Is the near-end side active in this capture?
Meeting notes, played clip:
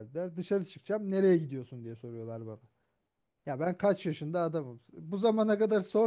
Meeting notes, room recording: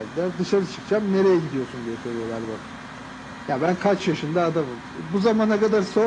No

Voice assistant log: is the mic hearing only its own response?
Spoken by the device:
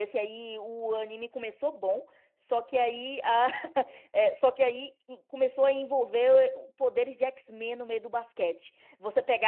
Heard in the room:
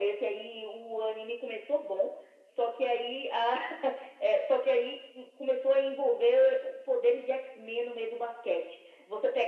Yes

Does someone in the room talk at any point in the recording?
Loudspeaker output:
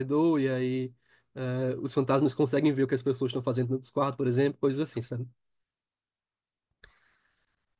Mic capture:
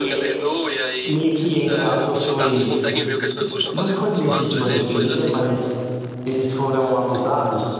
Yes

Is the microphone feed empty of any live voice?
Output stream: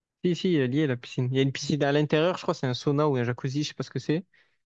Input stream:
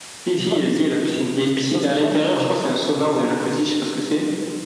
No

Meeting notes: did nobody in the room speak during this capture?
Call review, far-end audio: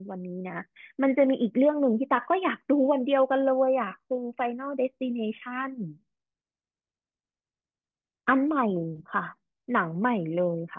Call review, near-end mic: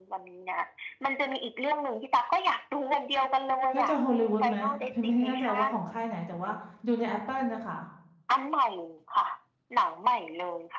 No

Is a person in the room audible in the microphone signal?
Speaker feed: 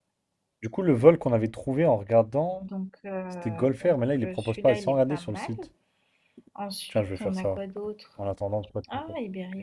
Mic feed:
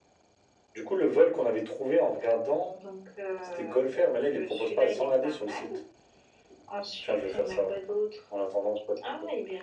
No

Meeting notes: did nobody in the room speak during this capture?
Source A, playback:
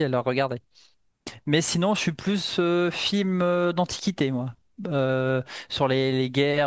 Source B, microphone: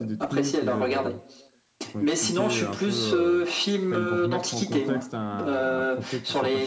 No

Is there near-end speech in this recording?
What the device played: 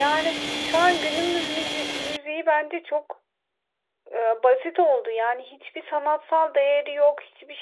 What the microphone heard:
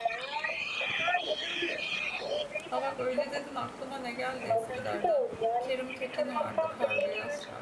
Yes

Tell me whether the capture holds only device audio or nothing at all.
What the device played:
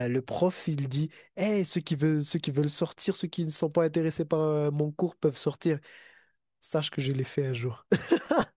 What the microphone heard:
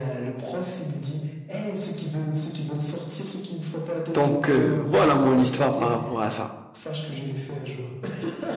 No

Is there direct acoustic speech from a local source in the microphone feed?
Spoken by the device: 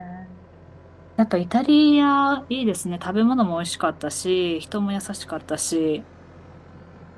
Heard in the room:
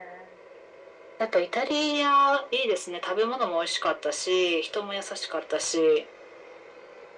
No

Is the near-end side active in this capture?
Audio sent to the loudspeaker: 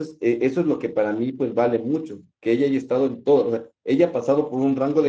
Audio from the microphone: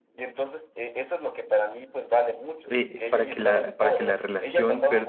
Yes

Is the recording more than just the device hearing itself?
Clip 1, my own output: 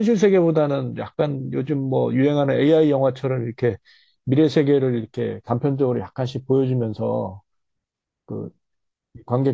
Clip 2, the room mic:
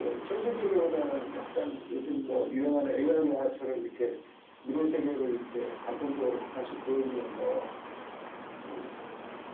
No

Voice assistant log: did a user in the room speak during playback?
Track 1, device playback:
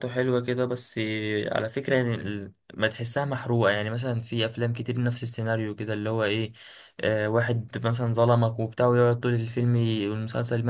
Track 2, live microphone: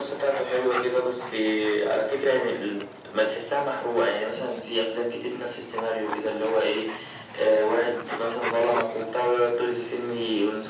No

